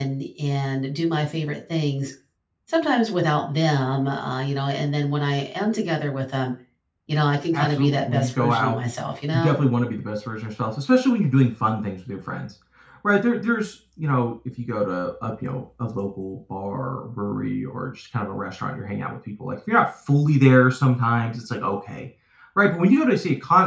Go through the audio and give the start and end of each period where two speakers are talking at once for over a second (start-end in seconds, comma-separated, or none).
7.5-8.8